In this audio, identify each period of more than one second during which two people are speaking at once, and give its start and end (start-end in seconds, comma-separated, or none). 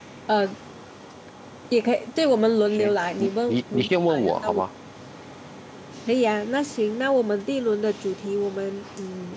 2.7-4.6